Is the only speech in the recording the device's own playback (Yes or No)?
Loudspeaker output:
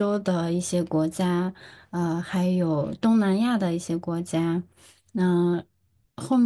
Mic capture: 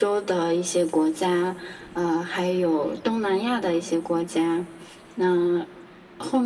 Yes